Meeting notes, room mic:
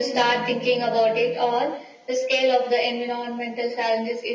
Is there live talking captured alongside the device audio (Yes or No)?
No